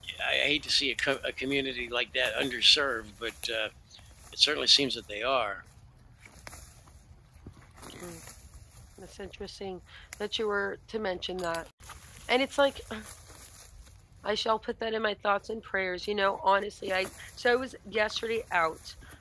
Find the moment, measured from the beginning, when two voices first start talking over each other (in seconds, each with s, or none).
none